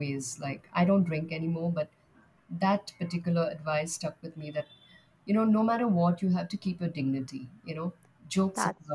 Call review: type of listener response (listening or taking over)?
listening